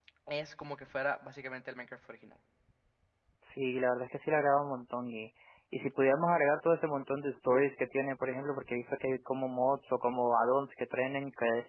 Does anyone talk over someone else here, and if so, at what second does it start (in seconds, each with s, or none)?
none